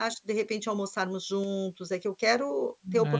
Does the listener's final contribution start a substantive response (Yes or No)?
No